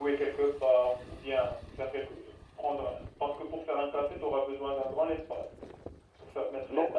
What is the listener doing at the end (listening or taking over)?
taking over